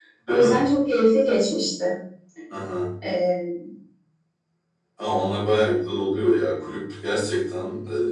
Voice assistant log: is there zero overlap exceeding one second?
Yes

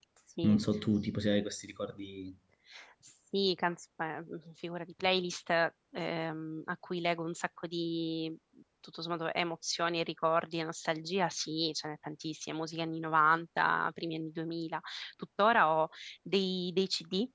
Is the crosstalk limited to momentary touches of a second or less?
Yes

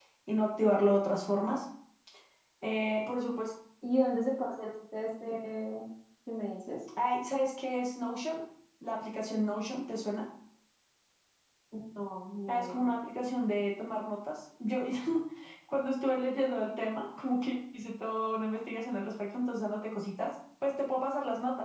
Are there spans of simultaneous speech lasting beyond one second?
No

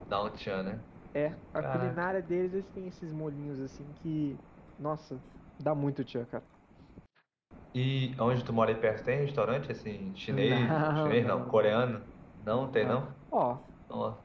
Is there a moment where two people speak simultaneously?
Yes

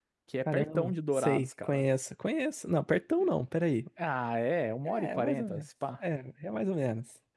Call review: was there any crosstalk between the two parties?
Yes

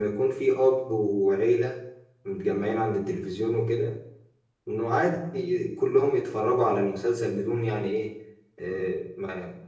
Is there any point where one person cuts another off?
No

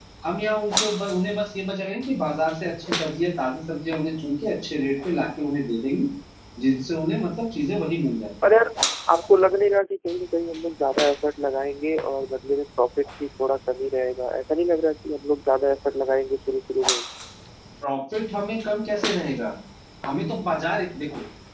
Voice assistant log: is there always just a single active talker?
Yes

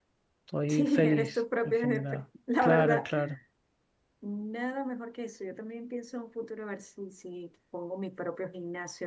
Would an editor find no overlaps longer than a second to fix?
No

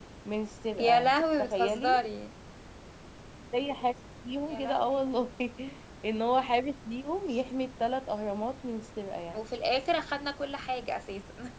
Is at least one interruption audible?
Yes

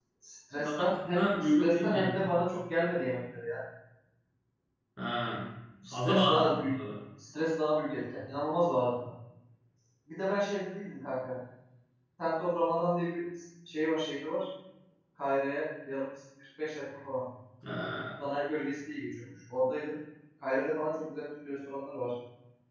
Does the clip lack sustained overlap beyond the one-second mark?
No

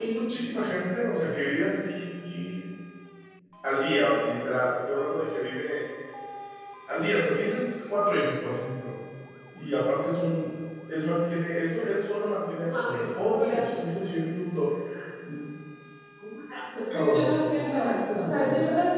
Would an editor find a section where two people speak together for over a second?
Yes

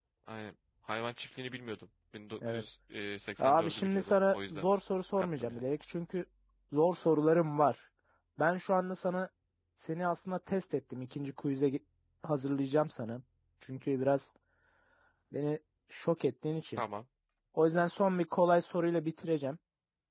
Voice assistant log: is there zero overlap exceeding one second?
No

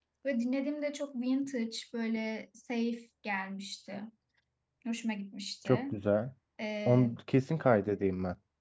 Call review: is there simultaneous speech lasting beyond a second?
No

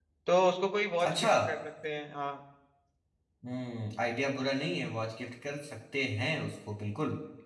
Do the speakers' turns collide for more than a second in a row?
No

